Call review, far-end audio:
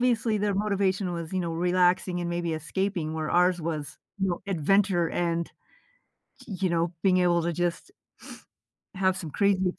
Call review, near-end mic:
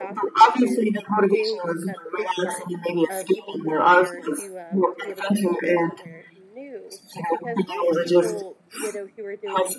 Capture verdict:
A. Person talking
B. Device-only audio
A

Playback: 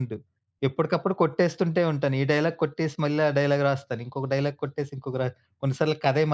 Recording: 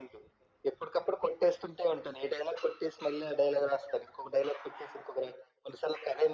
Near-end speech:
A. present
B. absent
B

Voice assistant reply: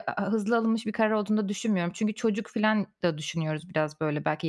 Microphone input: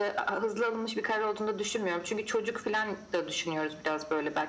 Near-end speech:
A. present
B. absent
B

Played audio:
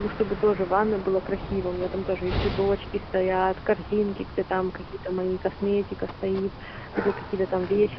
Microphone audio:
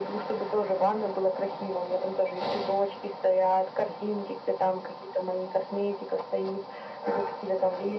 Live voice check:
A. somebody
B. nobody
B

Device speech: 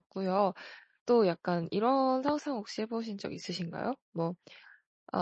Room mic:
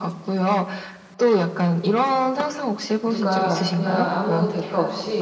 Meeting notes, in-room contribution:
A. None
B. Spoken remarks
B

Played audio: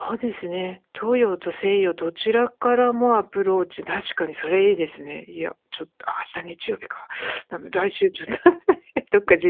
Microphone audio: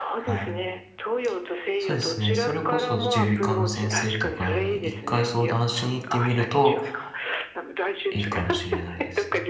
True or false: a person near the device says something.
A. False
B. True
B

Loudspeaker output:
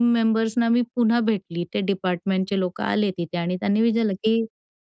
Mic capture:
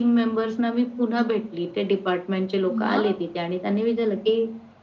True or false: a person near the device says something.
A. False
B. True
B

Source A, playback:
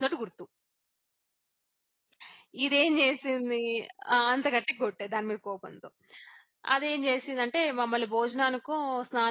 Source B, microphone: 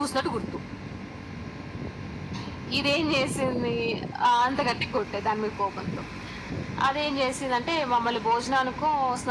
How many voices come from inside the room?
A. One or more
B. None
B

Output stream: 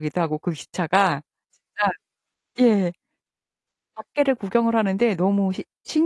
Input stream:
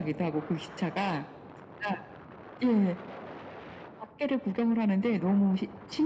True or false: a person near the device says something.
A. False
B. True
A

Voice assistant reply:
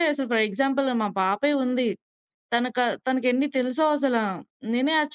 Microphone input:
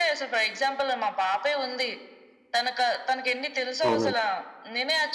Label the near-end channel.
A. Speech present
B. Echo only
A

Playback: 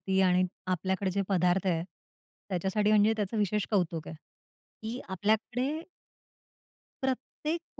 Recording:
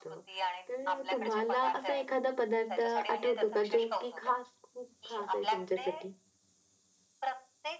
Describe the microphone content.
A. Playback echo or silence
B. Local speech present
B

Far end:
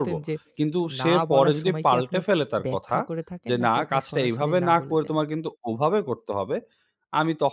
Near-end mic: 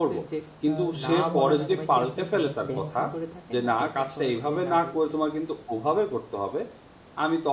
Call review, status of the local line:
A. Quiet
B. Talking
B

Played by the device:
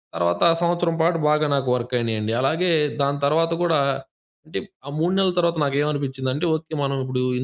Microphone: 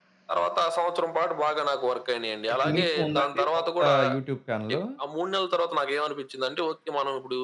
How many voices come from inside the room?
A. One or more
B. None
A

